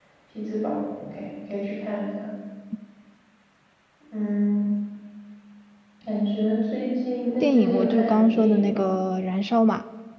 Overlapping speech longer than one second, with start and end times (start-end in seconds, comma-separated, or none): 7.4-8.8